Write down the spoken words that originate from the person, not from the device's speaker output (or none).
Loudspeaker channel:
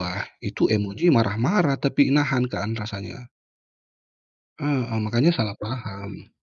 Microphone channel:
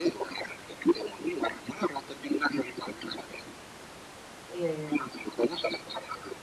Iya iya.